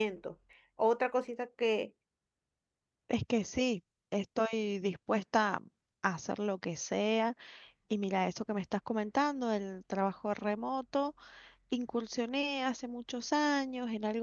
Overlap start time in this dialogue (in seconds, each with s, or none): none